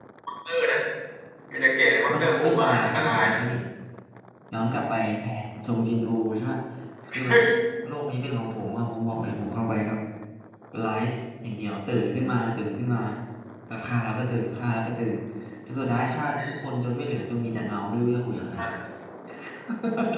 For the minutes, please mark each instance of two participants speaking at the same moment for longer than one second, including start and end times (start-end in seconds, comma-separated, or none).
2.1-3.4